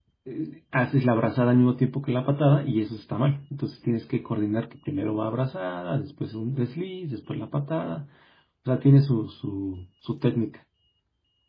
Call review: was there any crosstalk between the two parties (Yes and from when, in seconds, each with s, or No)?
No